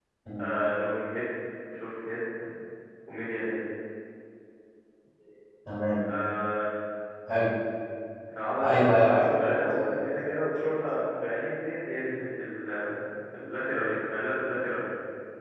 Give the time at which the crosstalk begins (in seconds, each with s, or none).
8.6 s